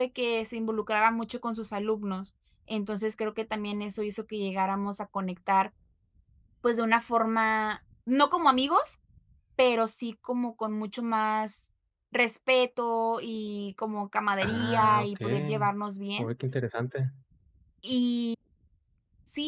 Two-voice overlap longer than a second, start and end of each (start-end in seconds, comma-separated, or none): 14.4-15.7